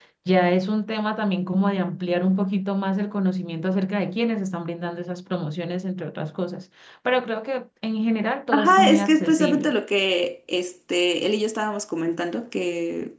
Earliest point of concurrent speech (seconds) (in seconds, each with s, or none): 8.5 s